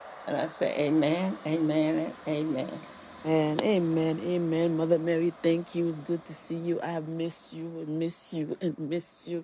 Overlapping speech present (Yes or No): No